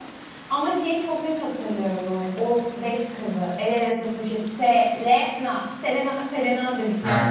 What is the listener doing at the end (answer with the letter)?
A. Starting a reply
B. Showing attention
A